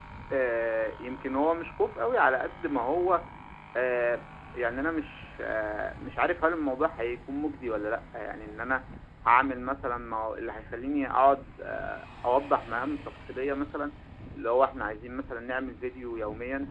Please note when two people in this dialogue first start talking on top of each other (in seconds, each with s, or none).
none